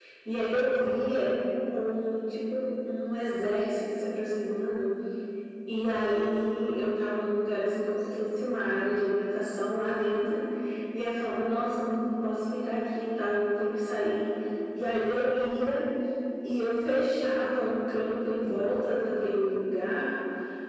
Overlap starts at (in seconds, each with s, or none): none